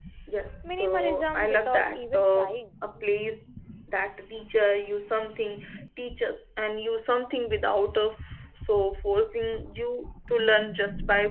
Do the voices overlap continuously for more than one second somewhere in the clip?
Yes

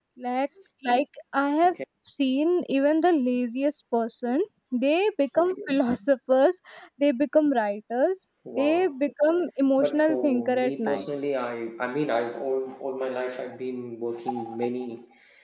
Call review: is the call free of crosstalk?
No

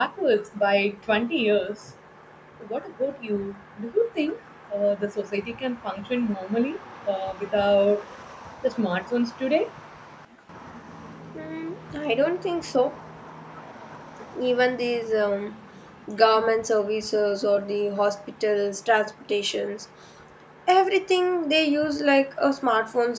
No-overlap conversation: Yes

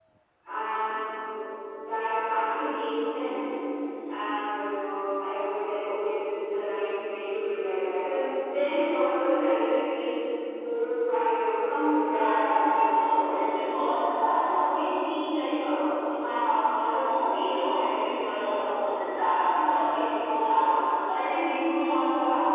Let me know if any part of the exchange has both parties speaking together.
Yes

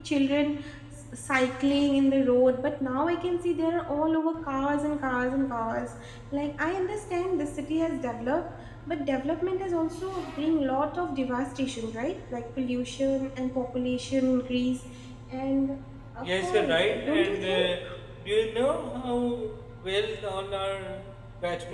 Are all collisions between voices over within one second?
No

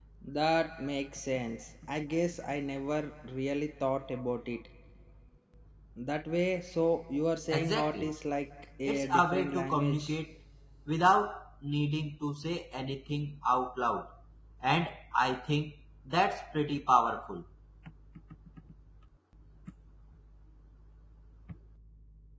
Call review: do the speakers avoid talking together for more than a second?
No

